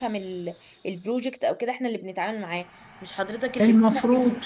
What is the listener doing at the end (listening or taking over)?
listening